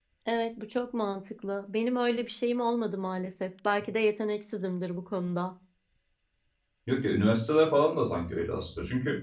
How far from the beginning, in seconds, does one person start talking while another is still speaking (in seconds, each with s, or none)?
none